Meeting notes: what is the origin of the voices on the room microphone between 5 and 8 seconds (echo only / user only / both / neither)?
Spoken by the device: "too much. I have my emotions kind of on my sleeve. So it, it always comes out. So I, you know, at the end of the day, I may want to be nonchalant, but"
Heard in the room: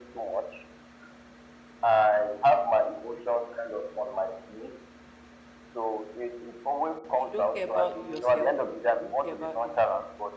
both